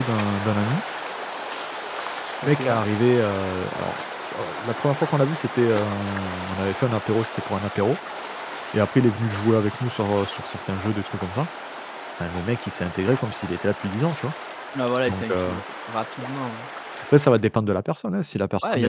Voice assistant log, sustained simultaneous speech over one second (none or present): none